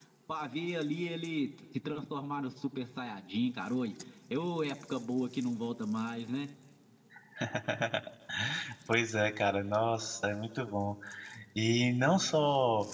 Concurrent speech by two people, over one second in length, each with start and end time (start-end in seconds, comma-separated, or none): none